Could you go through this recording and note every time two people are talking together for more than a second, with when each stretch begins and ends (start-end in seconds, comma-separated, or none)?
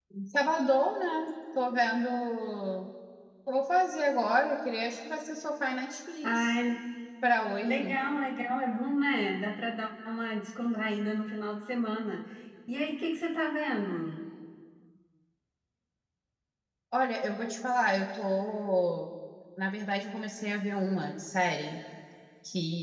none